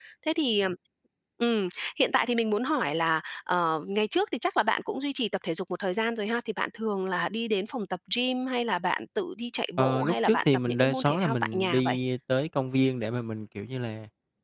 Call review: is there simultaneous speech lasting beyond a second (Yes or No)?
Yes